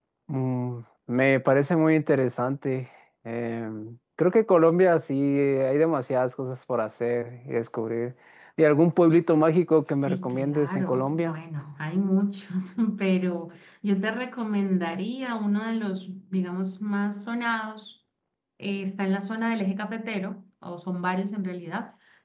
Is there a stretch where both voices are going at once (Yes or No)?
Yes